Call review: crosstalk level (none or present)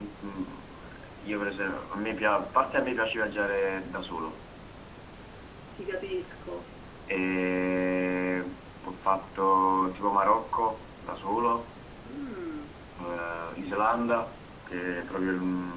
none